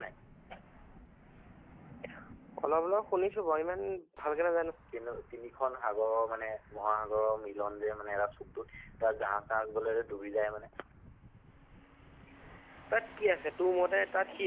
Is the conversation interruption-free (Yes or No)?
Yes